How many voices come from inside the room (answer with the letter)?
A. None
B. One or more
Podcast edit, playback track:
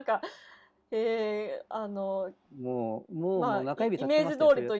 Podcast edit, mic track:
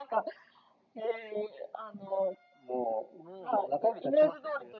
A